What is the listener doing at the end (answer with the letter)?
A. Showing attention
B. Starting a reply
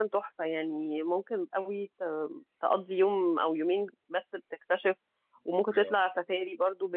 A